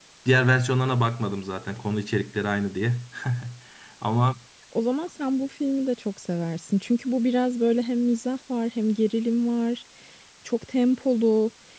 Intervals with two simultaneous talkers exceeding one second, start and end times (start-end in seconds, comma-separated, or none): none